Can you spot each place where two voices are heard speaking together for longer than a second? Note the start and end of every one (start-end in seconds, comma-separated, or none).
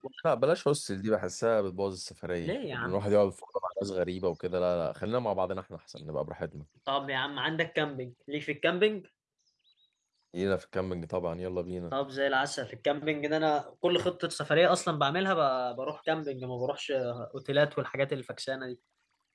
none